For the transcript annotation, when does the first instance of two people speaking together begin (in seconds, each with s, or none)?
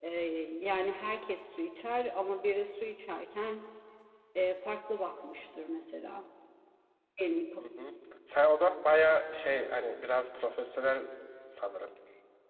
none